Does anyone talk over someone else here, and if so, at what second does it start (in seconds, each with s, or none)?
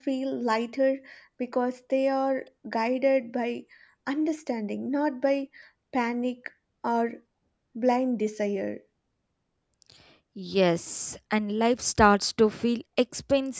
none